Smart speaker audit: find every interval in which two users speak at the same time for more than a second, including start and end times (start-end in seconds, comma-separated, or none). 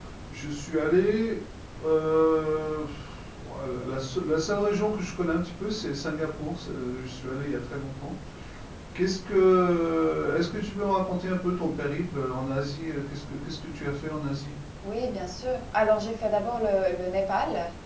none